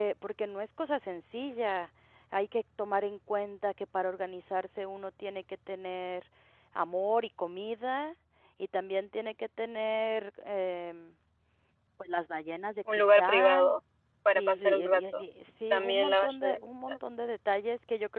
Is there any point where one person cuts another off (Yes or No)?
Yes